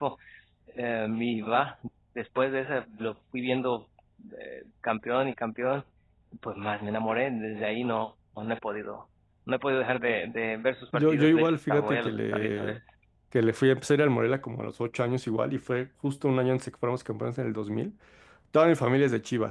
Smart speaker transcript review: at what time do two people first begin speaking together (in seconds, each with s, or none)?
10.9 s